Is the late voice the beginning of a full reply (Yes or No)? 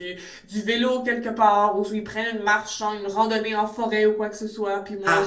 Yes